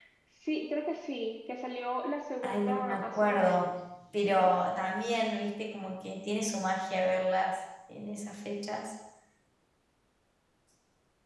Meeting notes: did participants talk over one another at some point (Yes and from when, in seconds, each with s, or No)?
Yes, from 2.4 s